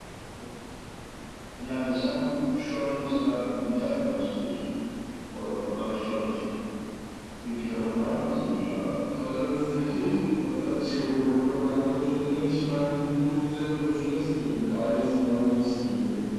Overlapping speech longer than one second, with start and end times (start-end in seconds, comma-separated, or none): none